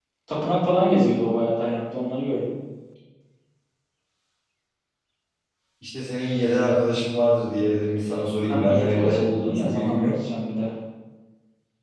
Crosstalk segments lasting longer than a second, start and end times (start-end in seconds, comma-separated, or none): 8.5-10.2